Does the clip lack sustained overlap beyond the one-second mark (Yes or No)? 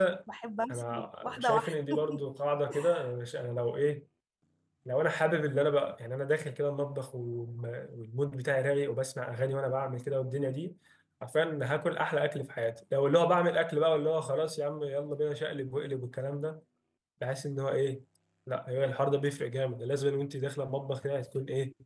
No